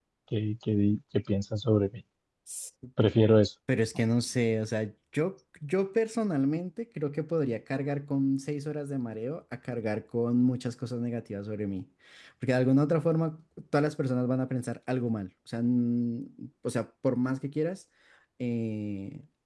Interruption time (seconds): none

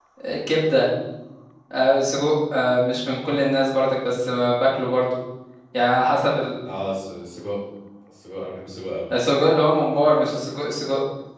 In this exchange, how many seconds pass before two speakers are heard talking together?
none

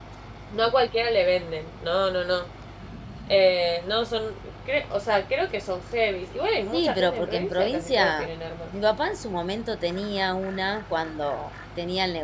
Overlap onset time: 7 s

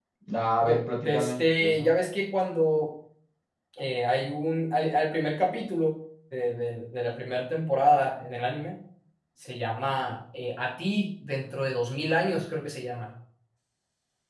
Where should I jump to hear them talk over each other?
1 s

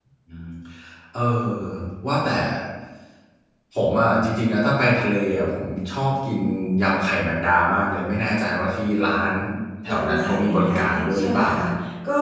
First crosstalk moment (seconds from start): 10 s

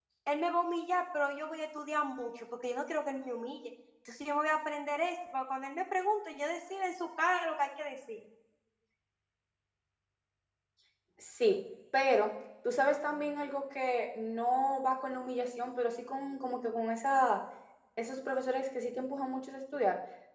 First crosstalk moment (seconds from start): none

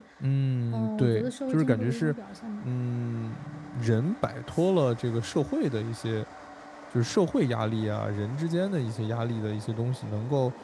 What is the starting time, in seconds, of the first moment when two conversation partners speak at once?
1 s

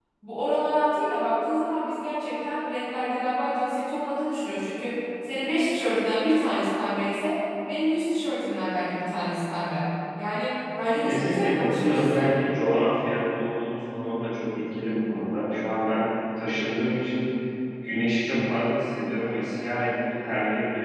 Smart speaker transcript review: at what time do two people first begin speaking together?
11 s

